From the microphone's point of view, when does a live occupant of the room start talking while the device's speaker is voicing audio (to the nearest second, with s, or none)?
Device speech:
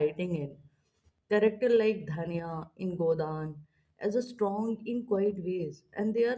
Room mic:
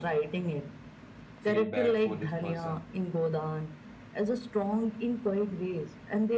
1 s